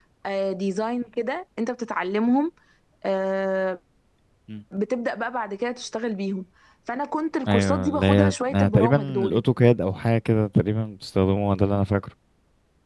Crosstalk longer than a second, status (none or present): present